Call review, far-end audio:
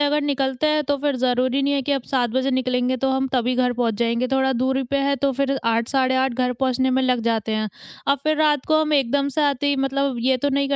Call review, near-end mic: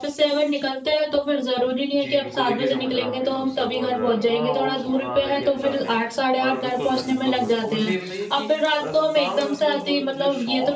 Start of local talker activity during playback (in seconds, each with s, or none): 2.0 s